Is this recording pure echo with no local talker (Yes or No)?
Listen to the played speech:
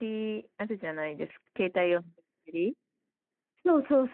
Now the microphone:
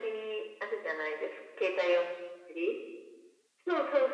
Yes